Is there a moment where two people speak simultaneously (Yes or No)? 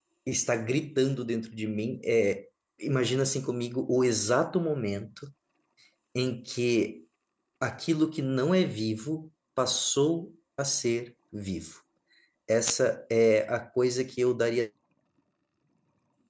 No